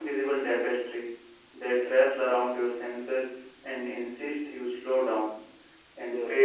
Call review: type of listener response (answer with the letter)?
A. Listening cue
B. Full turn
A